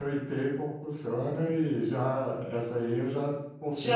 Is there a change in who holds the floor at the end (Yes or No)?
Yes